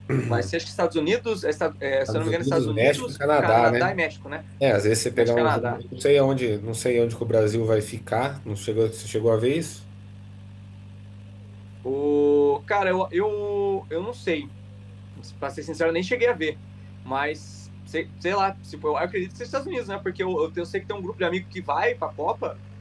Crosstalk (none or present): present